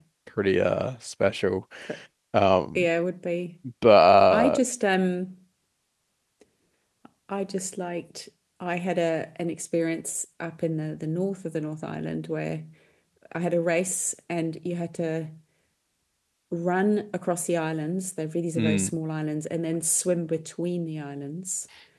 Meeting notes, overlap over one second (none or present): none